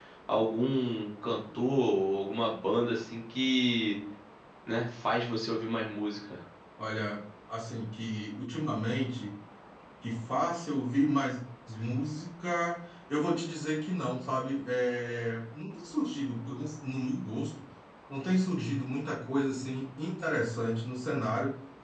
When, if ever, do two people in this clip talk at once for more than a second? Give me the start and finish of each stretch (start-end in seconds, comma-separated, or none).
none